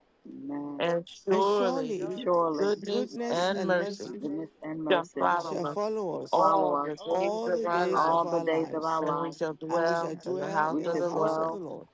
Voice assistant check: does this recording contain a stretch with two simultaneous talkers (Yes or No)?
Yes